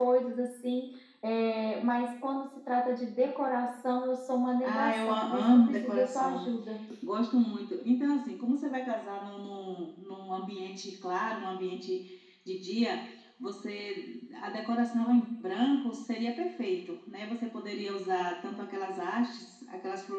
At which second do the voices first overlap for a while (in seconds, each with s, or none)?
4.6 s